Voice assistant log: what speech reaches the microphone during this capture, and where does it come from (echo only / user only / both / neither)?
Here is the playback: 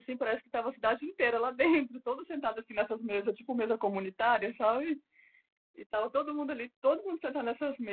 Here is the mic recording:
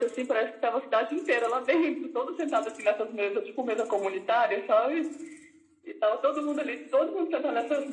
echo only